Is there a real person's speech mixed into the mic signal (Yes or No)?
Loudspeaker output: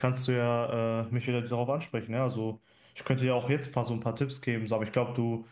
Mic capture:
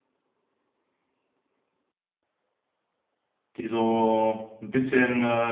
Yes